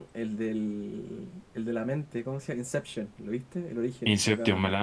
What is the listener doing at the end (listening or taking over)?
taking over